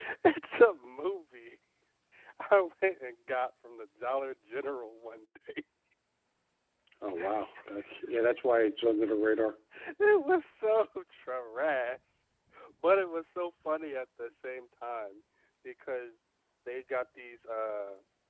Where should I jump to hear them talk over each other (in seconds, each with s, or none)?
none